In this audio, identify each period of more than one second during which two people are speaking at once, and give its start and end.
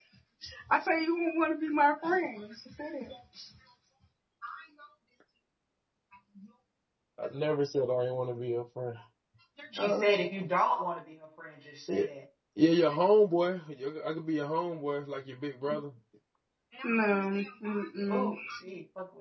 none

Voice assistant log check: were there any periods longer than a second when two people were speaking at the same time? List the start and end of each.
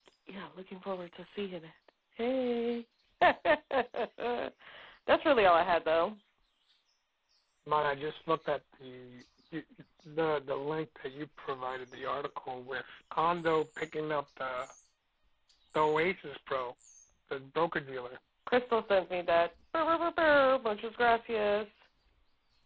none

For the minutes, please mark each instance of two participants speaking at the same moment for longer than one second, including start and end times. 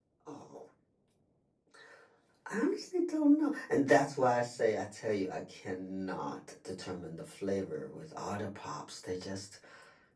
none

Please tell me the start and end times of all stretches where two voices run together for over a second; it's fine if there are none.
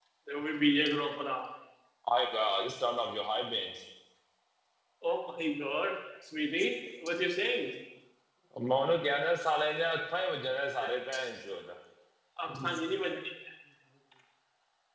none

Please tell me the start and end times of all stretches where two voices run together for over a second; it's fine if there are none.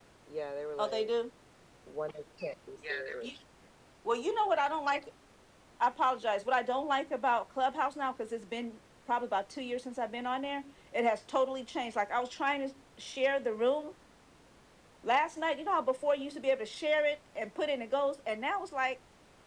none

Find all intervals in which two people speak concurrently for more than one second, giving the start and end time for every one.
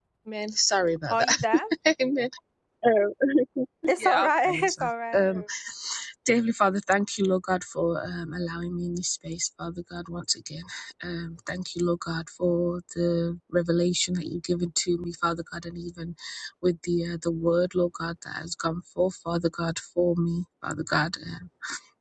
4.0-5.3

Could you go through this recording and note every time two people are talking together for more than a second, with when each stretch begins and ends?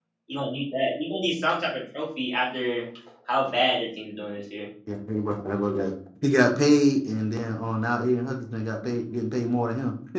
none

